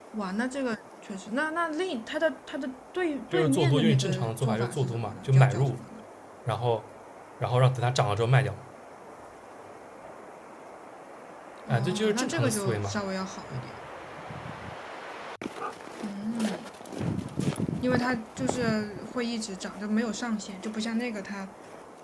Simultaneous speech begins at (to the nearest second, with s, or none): 3 s